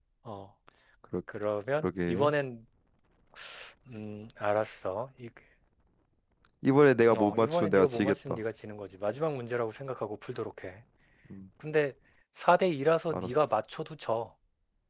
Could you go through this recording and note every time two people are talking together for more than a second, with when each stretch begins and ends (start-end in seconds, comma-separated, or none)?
7.1-8.4